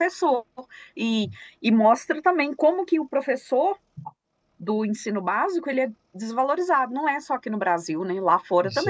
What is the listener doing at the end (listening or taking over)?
taking over